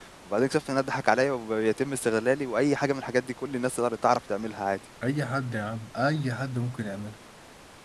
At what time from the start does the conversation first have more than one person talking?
none

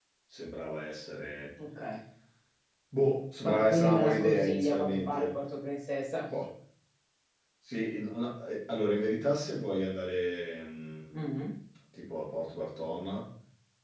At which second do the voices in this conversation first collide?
3 s

